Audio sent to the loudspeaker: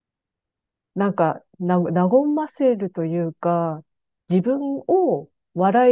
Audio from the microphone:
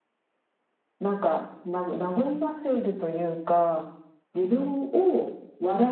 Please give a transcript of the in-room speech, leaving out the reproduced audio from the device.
none

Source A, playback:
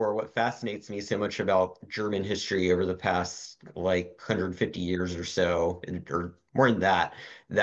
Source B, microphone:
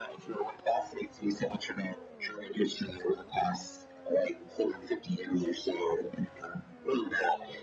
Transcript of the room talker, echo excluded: none

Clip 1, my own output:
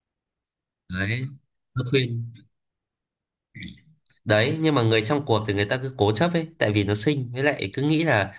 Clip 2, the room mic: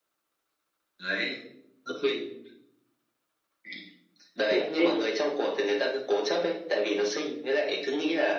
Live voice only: Điểm gì?

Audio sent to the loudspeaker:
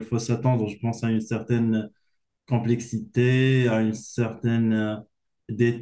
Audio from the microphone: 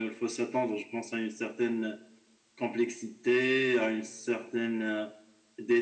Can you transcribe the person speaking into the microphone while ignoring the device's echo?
none

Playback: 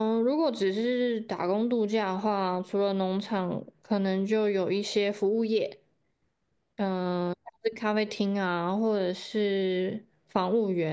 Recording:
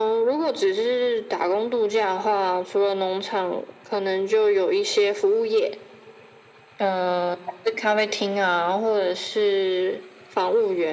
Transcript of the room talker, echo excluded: none

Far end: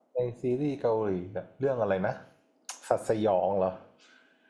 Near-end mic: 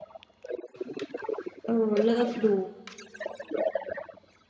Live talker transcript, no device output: เออเลิกดู

